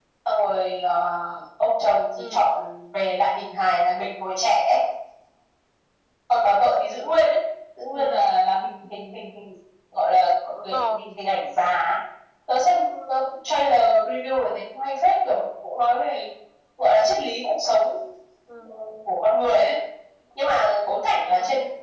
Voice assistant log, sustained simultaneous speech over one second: none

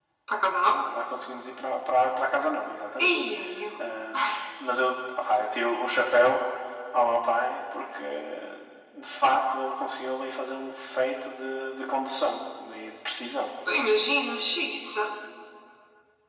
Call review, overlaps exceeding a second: none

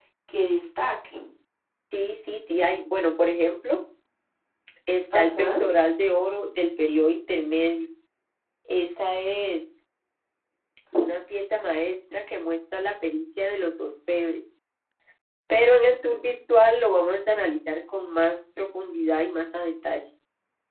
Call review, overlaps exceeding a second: none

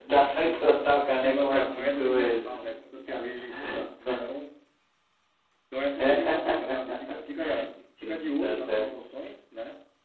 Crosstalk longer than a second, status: present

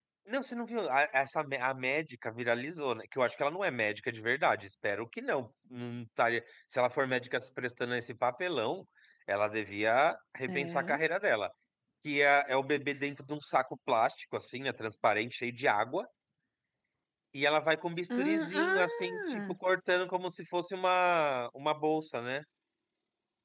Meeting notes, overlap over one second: present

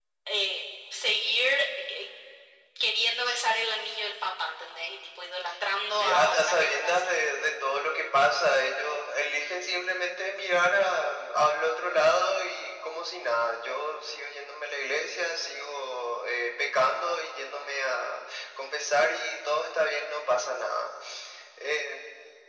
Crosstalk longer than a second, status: present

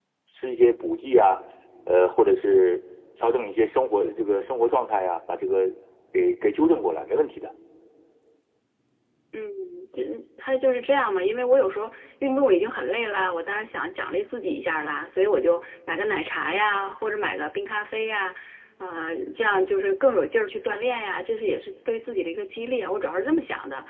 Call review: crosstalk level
none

